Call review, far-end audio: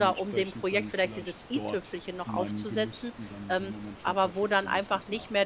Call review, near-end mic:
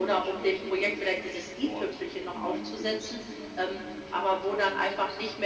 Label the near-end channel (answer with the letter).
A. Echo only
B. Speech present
A